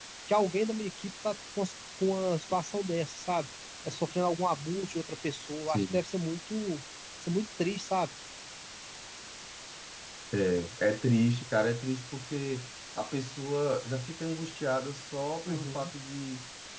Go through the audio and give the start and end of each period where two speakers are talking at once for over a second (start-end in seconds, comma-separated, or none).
none